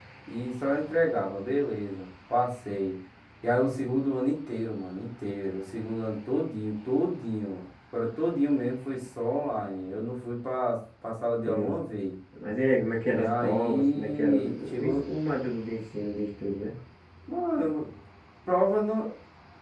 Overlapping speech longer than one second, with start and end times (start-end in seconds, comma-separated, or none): 13.1-15.0